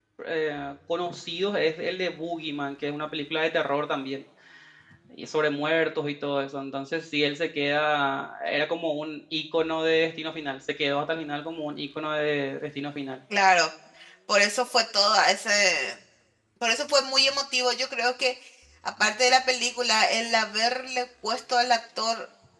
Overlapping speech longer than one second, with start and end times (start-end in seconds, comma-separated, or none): none